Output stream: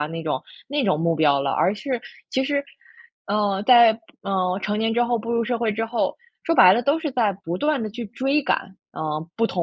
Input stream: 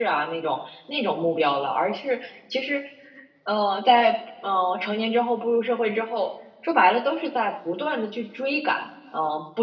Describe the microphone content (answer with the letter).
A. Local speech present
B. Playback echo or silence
B